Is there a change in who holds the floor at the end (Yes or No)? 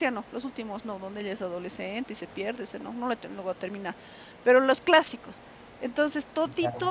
No